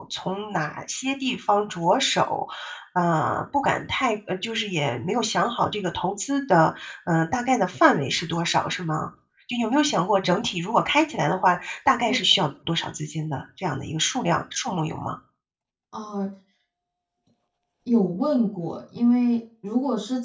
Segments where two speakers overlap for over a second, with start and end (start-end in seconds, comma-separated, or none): none